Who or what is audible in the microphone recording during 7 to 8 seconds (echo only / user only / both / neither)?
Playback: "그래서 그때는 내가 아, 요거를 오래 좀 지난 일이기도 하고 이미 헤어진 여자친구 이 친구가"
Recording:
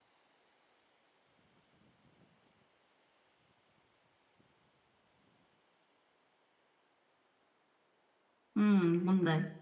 neither